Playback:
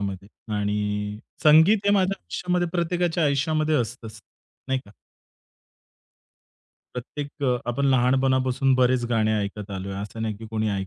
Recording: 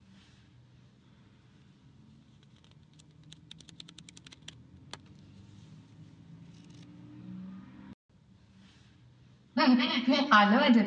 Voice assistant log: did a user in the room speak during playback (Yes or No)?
Yes